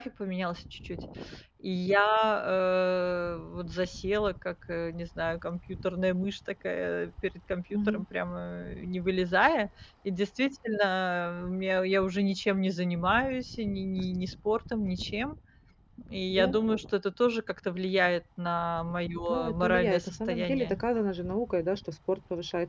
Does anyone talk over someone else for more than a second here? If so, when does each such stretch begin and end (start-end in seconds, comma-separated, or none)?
19.3-20.8